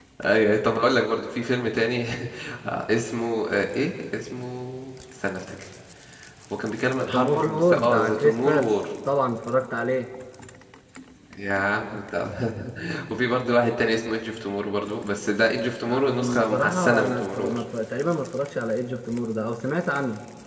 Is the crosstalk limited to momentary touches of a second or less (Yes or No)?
No